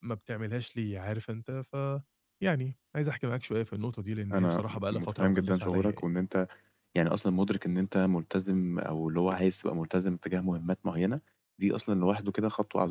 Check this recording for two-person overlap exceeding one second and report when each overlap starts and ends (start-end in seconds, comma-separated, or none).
4.3-6.1